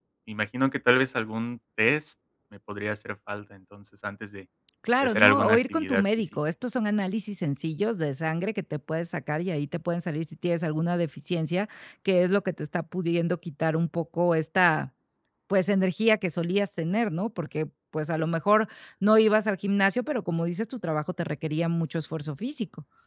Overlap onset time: 5 s

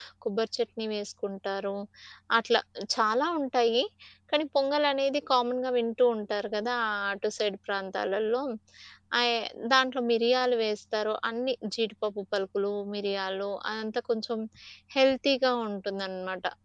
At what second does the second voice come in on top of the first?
none

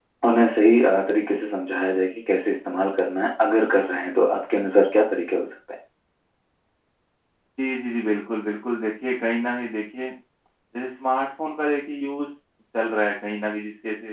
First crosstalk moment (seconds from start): none

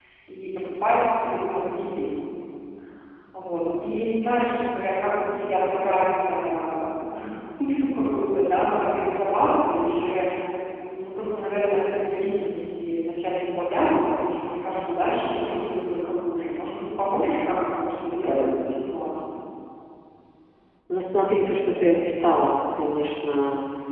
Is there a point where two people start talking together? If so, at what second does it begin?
none

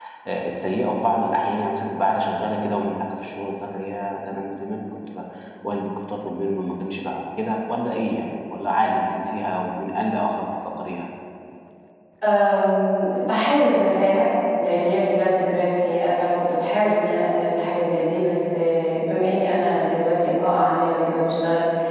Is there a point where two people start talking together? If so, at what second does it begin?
none

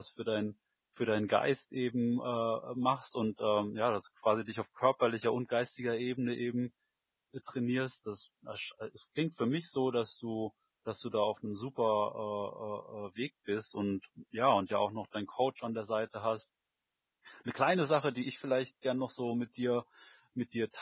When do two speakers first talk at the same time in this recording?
none

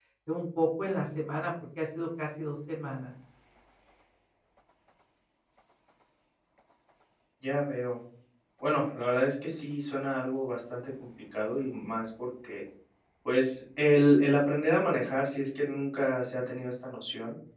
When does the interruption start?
none

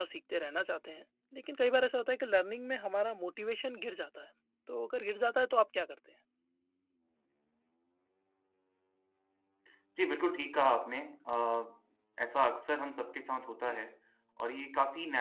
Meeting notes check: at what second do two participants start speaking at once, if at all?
none

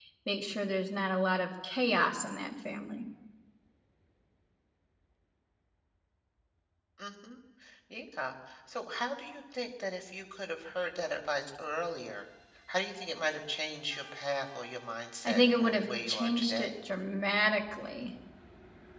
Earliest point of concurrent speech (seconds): 15 s

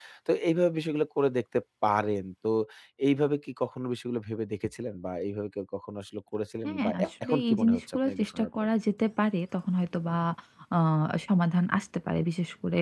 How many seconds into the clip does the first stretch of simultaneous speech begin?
7 s

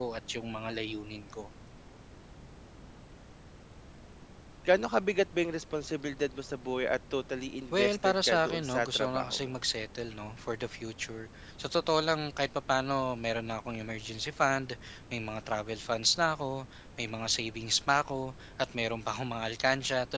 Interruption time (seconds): 8 s

